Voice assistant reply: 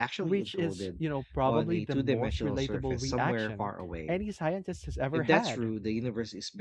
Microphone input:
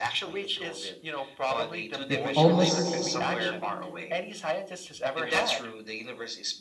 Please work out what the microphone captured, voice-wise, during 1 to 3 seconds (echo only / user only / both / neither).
both